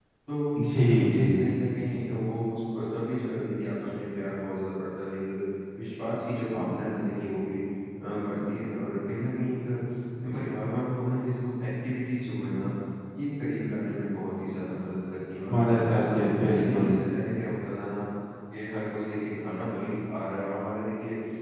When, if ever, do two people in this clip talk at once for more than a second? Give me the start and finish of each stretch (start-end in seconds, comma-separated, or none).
15.6-16.9